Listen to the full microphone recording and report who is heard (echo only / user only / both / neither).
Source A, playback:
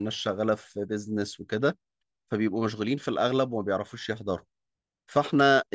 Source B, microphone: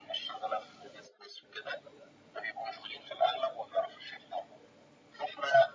echo only